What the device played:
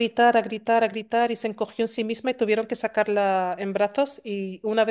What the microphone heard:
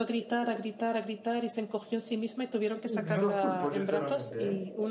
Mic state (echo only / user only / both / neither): both